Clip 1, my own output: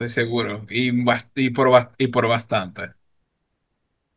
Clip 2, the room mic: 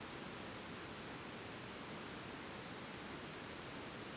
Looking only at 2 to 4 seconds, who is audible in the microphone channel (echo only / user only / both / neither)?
neither